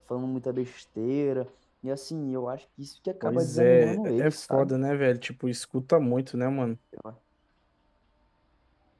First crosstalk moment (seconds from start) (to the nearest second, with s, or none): 3 s